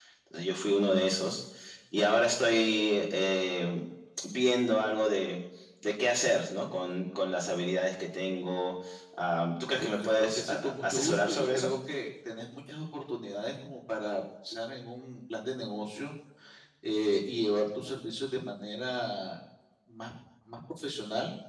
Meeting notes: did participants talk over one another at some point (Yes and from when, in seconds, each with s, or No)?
Yes, from 9.8 s